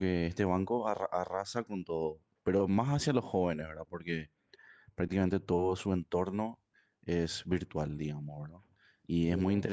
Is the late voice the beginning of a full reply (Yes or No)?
No